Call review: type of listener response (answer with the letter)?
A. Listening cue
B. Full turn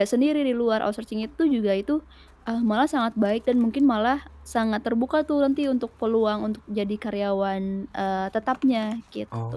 B